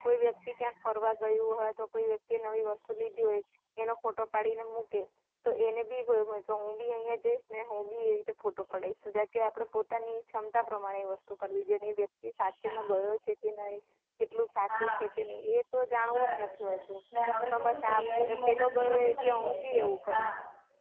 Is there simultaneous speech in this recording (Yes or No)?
Yes